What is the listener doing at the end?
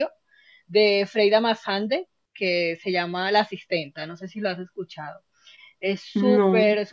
listening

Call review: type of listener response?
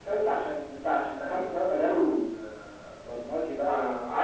taking over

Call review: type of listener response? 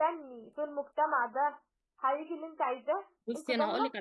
taking over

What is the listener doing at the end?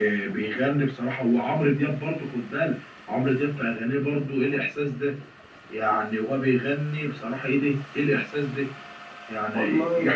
listening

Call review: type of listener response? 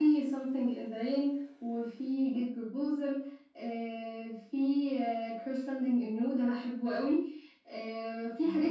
listening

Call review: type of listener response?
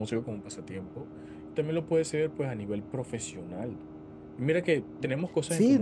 taking over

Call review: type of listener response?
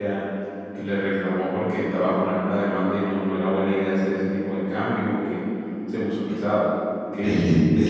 taking over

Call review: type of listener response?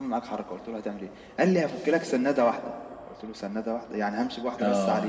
taking over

